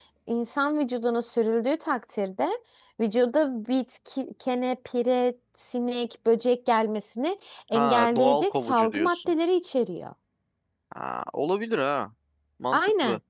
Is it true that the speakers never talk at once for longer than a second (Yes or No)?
No